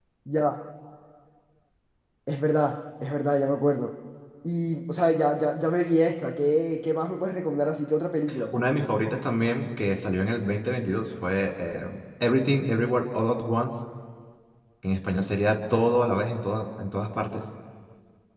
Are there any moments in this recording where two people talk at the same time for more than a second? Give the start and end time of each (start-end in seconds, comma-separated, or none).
none